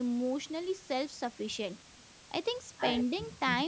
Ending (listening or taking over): listening